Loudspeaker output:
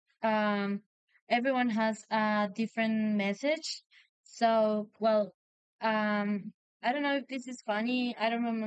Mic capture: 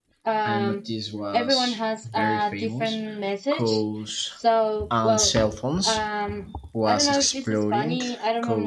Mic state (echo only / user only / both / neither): both